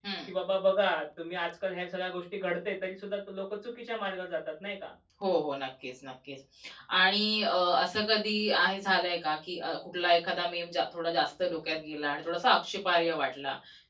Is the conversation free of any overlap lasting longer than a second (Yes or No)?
Yes